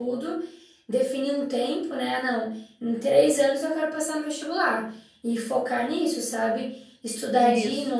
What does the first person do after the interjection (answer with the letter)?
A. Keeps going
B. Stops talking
A